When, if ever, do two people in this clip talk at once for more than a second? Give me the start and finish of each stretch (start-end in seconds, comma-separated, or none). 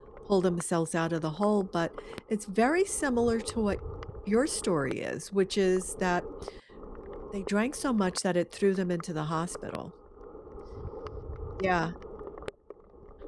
none